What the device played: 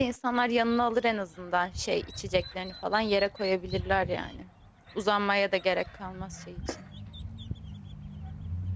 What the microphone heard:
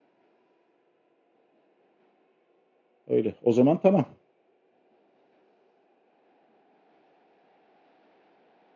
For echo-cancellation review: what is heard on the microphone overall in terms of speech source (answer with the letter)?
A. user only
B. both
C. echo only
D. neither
A